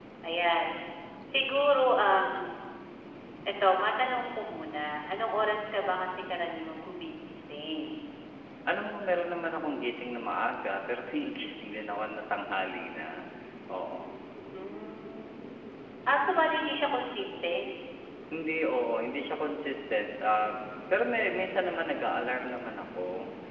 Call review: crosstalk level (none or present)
none